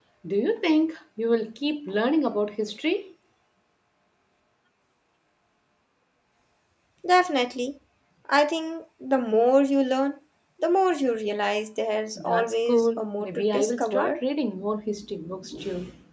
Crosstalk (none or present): present